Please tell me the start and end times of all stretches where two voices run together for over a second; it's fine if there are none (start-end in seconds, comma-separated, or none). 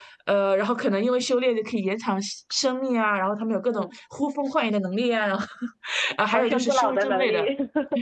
6.3-7.5